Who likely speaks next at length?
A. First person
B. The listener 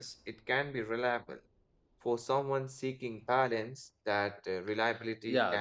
B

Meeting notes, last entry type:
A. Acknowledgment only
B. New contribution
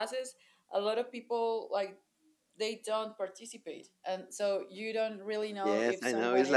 B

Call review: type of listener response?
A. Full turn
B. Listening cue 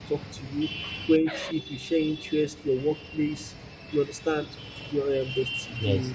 B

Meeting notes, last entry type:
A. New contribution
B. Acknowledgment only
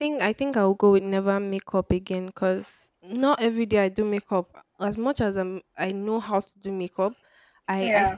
B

